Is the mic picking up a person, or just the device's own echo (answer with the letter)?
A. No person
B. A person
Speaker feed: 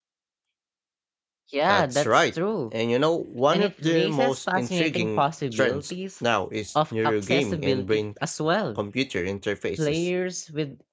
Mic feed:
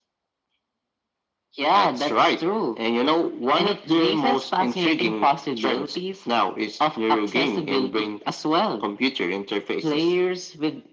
A